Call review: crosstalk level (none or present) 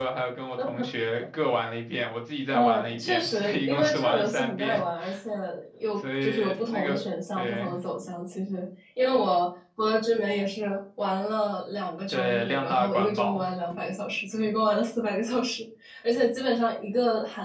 present